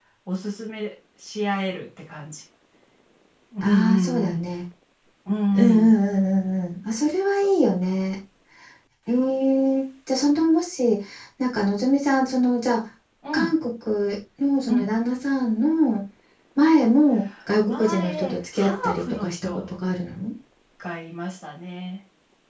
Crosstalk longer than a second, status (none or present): present